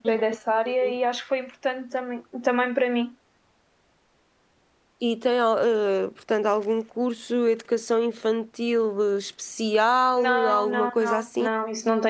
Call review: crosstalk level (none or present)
present